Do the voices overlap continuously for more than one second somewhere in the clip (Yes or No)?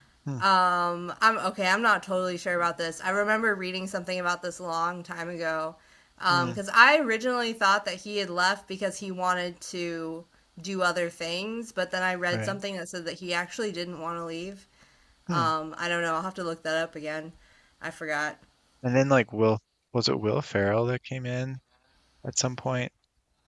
No